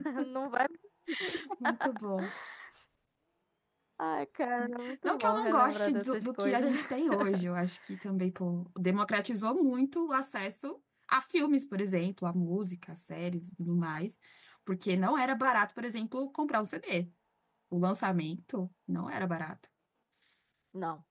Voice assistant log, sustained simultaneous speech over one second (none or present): present